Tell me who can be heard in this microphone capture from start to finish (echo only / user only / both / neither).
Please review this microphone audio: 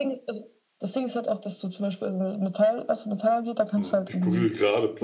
both